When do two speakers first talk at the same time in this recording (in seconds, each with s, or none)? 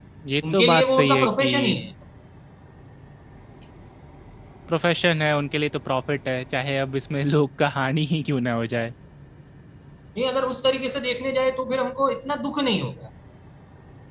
0.5 s